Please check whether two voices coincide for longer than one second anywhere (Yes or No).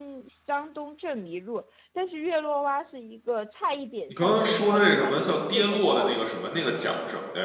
Yes